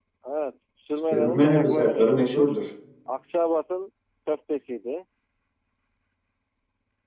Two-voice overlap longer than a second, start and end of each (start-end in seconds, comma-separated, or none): 1.1-2.5